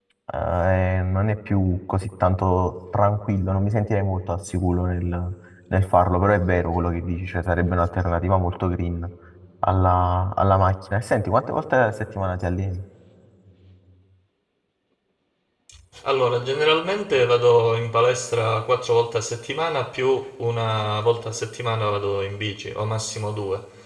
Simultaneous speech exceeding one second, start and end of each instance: none

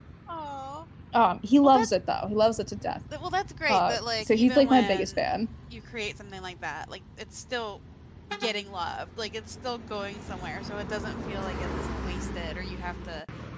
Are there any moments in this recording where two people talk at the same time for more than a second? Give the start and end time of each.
3.7-5.2

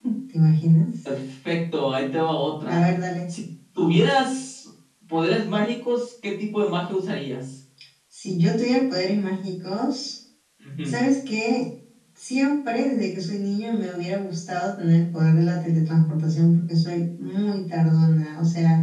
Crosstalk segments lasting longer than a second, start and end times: none

